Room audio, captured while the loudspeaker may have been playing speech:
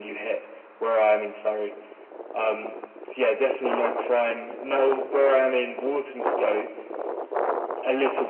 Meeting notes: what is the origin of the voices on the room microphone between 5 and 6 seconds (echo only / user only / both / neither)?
echo only